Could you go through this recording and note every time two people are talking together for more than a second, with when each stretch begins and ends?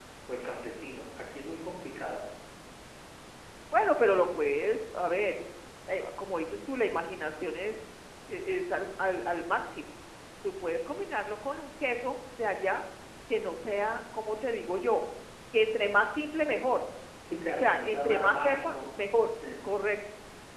17.5-18.7

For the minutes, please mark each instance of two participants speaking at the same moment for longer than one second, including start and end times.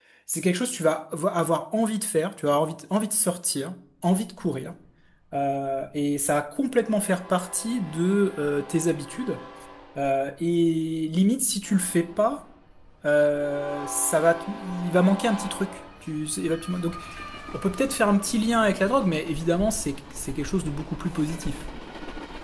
none

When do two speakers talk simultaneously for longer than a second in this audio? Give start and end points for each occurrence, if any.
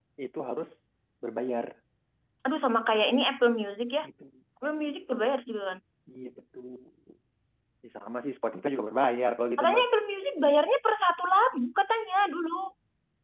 none

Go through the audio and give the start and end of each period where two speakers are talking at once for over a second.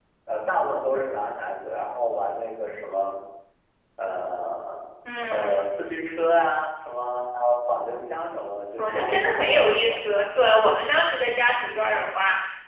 8.8-10.0

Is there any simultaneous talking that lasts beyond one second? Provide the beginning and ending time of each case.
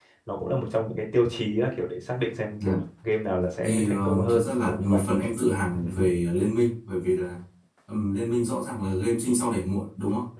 3.6-5.0

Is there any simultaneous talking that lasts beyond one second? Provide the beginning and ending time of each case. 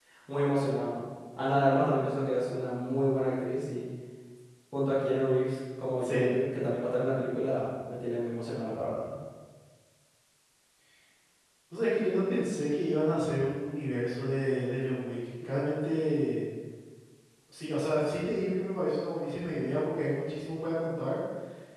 none

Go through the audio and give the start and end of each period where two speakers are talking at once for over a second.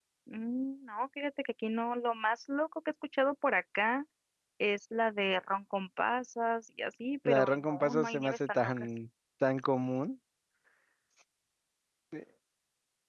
7.2-8.9

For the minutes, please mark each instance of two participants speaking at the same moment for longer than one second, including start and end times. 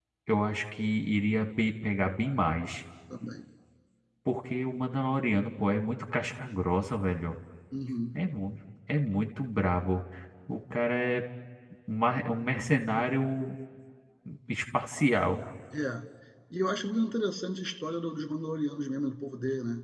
none

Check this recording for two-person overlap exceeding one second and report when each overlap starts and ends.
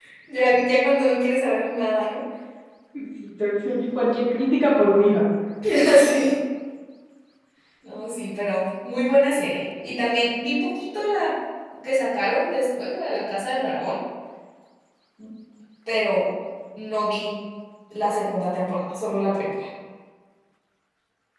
none

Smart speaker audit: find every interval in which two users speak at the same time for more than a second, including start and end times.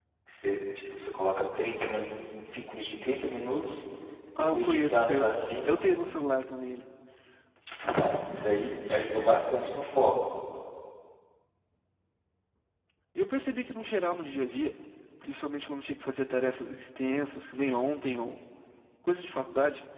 4.4-5.8

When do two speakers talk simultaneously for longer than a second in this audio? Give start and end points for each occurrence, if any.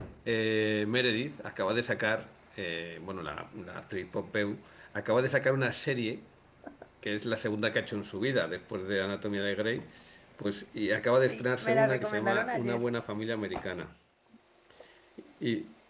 11.3-12.8

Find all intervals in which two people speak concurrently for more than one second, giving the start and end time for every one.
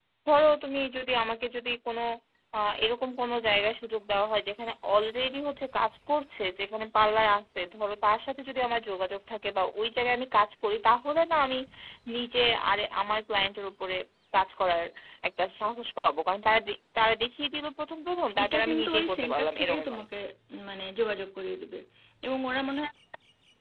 18.4-20.1

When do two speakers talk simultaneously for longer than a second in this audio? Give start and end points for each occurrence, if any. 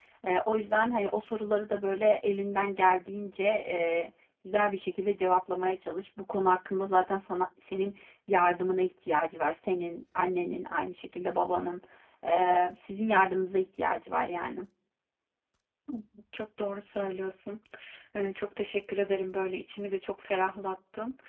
none

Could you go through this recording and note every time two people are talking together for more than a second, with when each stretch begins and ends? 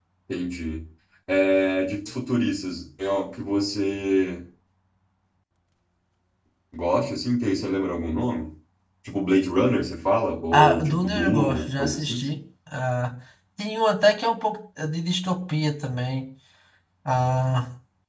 10.5-12.2

